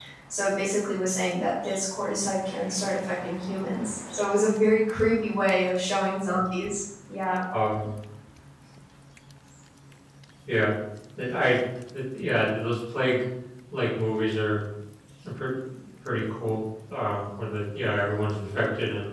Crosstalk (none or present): none